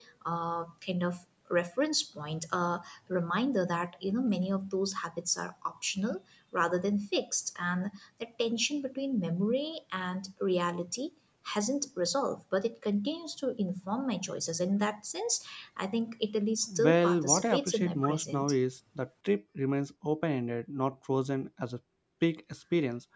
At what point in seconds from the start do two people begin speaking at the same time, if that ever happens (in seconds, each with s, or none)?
16.7 s